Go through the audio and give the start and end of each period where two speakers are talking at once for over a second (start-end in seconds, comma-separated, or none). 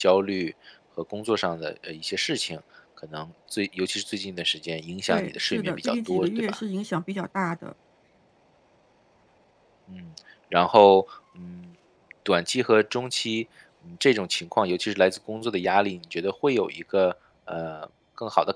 5.1-6.6